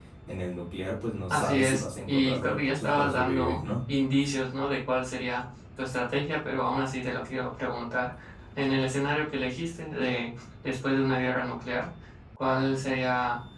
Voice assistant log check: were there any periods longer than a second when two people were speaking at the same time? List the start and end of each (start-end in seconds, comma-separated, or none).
1.3-3.6